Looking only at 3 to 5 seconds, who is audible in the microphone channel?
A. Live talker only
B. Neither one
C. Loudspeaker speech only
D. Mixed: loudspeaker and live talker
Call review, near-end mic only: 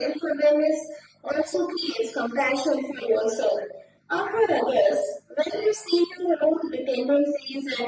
C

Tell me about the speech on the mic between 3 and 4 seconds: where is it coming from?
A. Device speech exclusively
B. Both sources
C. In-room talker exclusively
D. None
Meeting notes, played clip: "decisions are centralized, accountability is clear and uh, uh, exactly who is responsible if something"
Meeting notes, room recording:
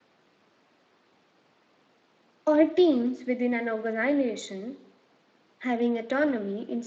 C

